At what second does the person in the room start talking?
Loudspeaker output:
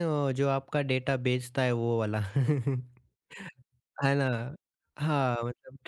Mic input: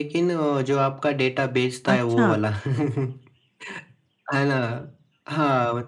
2 s

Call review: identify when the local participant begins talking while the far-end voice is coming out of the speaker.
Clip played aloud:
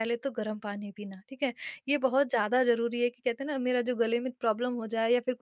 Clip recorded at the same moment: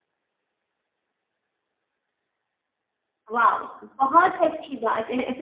3 s

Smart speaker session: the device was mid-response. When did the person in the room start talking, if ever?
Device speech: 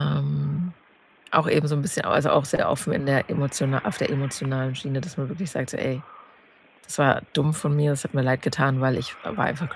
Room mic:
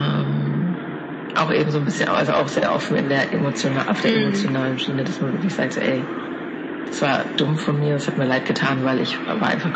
4 s

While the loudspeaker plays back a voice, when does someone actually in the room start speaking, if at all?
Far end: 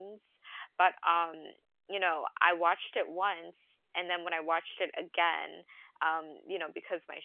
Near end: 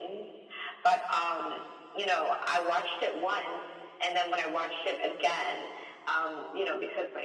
none

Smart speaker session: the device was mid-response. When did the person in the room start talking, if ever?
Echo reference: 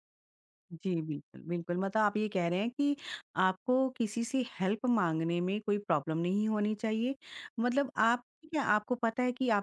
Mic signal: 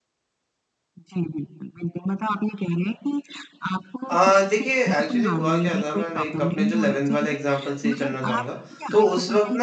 4 s

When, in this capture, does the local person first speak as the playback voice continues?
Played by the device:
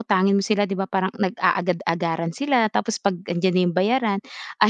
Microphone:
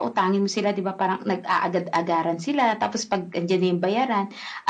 none

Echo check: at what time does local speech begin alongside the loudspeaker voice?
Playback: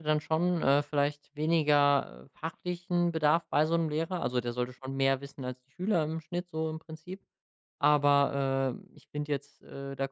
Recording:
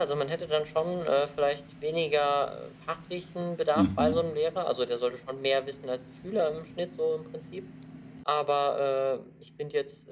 4 s

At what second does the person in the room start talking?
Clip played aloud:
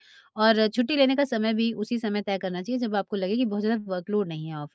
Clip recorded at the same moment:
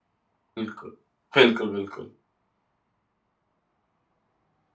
1 s

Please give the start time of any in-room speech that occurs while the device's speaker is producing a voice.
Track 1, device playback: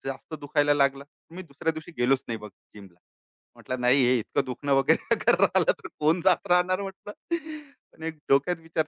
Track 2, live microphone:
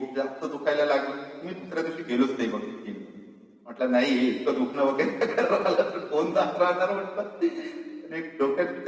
none

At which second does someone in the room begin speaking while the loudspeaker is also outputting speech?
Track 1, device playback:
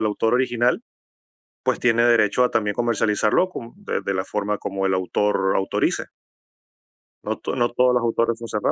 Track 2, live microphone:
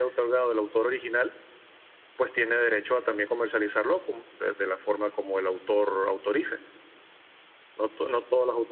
none

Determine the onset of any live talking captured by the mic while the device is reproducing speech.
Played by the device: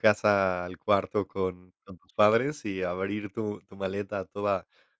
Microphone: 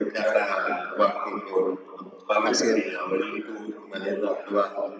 2 s

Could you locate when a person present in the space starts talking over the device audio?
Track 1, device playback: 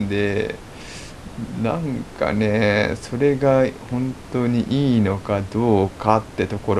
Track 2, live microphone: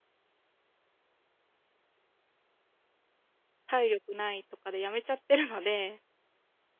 4 s

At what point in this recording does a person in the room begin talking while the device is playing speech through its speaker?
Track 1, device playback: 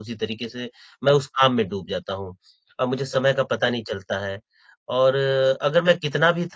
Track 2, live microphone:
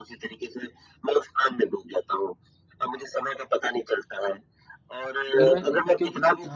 5 s

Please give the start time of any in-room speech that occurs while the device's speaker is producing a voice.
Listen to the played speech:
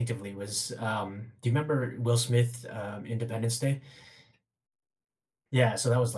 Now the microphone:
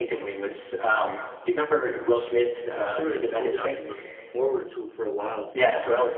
3 s

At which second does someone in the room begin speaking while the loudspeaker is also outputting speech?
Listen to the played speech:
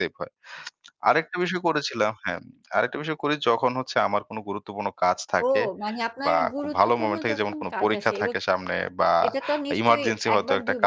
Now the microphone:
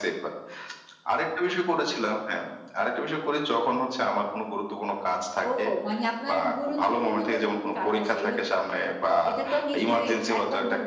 none

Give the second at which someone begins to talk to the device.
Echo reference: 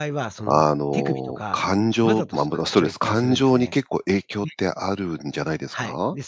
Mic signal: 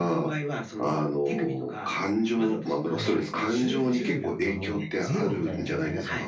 3 s

